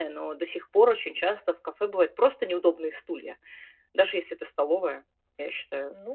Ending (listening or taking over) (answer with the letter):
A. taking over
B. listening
A